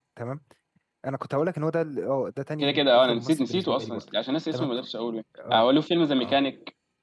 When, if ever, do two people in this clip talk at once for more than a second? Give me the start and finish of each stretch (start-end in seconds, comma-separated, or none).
2.6-4.0